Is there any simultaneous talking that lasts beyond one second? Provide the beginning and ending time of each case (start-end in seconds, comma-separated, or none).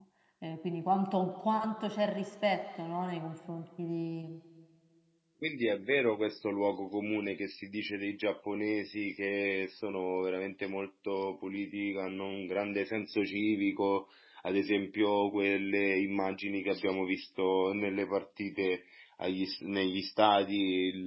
none